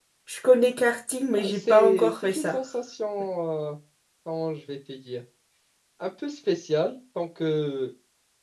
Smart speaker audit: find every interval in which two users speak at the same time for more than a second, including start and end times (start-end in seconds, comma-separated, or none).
1.4-2.6